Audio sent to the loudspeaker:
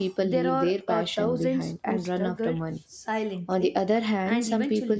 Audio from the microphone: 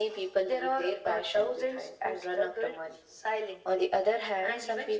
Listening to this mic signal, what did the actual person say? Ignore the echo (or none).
none